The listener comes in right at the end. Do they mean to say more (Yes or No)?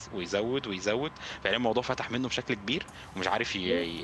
No